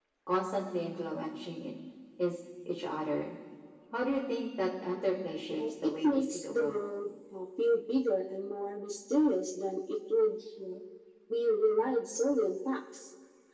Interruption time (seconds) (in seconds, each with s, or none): 5.5 s